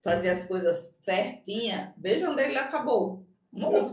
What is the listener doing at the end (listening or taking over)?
taking over